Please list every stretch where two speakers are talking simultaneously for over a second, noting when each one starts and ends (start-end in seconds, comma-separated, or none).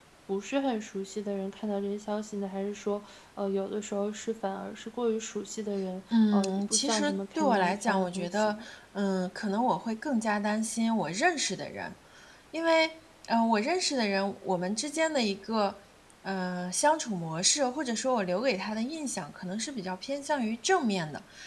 6.1-8.6